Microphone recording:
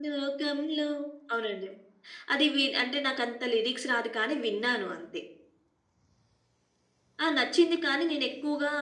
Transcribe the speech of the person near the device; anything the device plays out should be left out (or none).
none